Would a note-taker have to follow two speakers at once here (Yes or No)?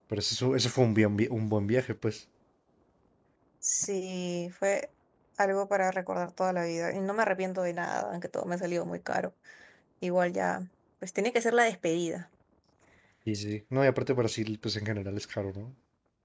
No